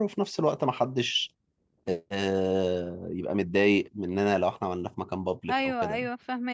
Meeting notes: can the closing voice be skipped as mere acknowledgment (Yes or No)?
No